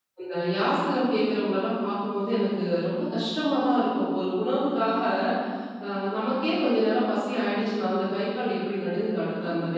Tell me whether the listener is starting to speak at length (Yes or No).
No